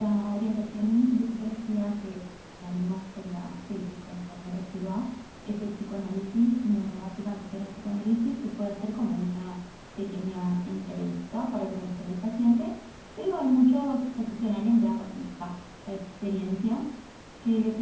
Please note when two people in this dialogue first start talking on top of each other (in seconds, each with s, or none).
none